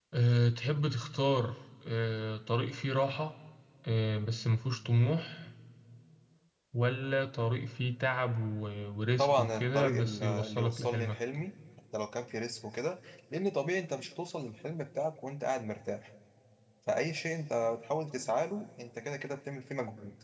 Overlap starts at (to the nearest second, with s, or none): 9 s